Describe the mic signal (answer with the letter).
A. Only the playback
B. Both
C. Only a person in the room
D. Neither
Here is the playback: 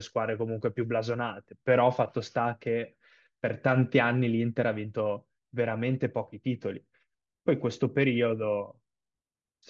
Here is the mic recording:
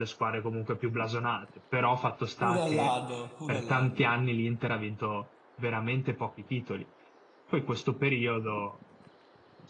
B